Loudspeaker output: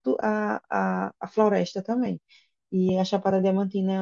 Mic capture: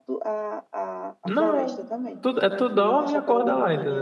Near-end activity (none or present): present